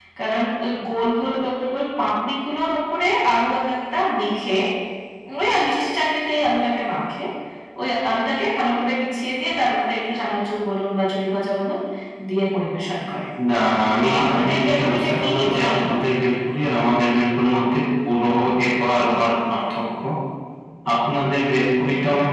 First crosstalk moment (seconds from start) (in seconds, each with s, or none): 13.9 s